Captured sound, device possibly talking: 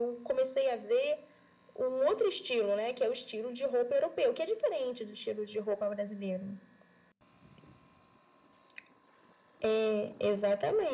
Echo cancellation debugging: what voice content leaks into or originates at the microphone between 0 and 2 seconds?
echo only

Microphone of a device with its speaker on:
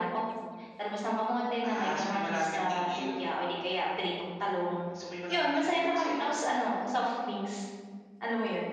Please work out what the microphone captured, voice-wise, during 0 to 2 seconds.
echo only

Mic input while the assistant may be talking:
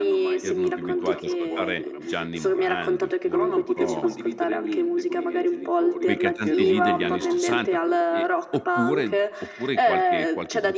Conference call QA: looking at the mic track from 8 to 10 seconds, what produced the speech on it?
both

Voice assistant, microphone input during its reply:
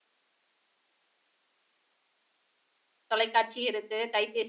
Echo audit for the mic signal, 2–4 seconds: user only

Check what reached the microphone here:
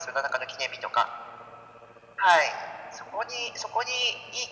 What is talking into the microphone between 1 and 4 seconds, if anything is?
echo only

